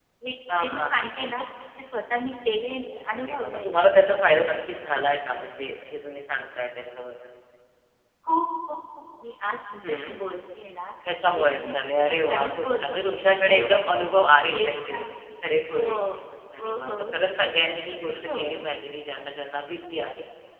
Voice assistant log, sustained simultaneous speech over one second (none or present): present